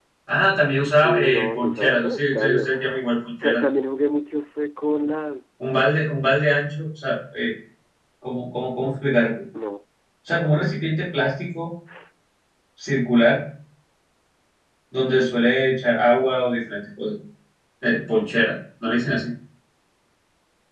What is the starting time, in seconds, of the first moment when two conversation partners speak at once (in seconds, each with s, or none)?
0.9 s